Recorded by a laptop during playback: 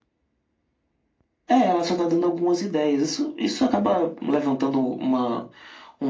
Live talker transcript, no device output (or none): none